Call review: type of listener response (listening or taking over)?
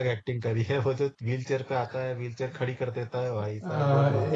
taking over